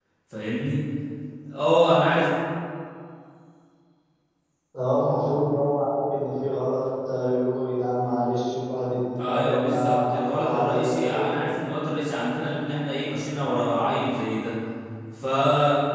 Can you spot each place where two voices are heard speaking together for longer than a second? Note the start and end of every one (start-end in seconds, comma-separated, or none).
9.2-11.4